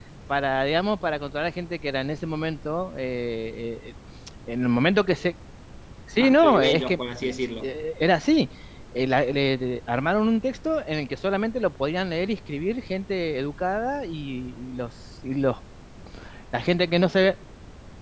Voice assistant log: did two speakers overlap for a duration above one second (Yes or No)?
Yes